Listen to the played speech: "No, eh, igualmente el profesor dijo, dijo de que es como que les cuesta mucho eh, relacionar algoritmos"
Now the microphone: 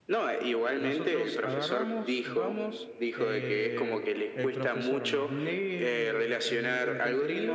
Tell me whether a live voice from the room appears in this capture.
Yes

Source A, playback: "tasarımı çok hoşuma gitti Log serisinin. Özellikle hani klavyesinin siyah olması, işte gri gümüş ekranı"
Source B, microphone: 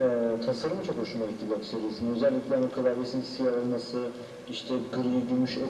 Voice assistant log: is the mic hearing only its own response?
Yes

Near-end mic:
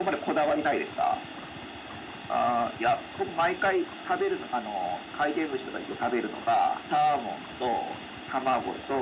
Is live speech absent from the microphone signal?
Yes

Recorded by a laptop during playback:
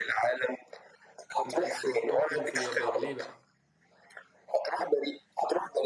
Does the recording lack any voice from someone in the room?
No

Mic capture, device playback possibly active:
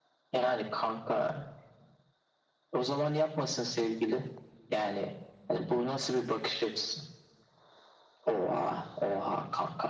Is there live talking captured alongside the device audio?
No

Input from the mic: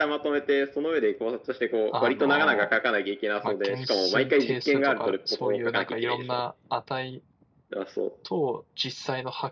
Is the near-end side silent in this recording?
No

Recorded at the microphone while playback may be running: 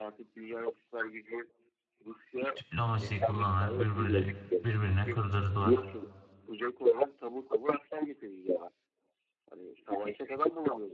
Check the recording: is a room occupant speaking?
Yes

